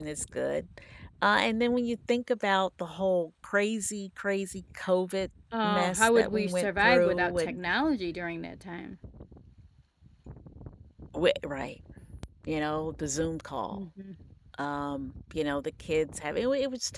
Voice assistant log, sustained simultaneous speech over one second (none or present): present